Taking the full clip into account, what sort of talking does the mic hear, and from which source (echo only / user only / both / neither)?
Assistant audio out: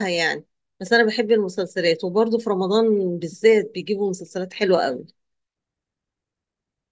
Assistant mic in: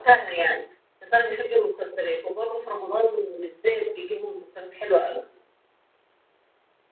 echo only